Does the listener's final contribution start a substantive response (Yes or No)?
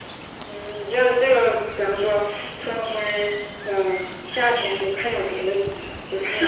Yes